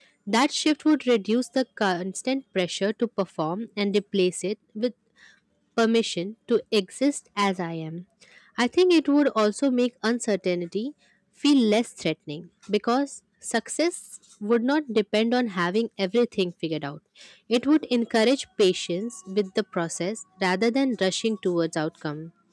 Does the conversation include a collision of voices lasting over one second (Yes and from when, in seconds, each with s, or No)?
No